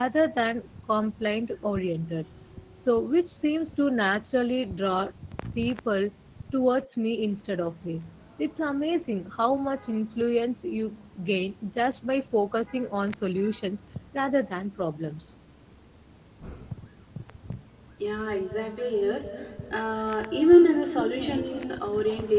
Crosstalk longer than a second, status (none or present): none